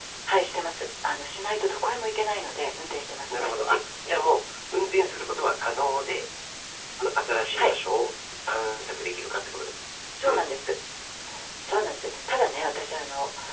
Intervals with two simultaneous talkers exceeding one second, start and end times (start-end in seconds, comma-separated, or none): none